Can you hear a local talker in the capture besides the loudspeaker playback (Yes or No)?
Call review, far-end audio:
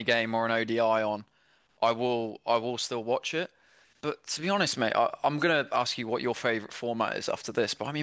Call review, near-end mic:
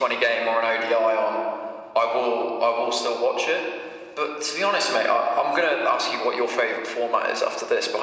No